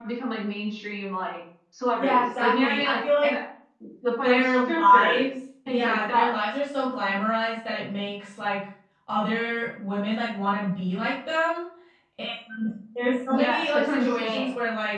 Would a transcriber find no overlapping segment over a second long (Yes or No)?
No